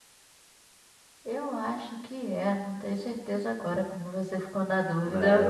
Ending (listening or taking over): taking over